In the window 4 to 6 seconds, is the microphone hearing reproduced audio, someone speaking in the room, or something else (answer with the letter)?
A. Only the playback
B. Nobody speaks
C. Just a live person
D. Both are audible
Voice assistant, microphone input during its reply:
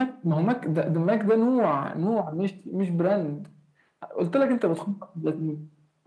A